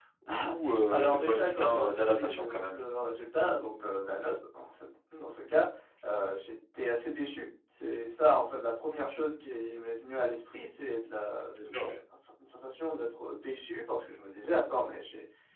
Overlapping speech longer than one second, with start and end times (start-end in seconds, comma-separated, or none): 0.9-2.8